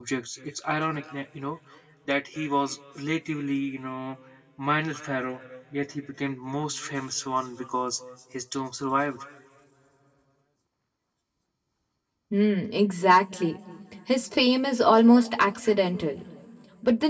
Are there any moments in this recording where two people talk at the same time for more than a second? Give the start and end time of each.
none

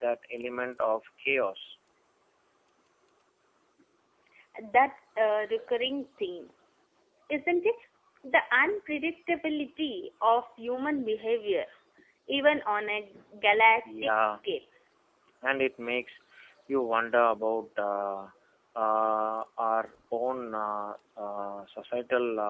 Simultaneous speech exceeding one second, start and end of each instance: none

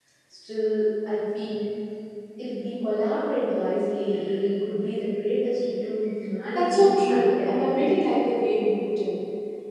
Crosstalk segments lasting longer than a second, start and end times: 6.6-8.0

